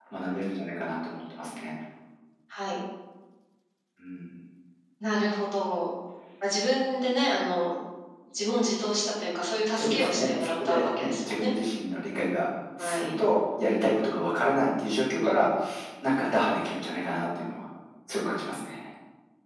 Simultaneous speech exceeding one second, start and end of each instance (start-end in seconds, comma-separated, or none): 9.8-11.5